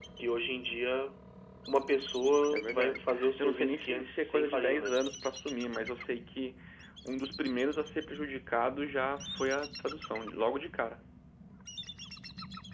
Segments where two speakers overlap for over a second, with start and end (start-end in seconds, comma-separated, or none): 2.5-5.0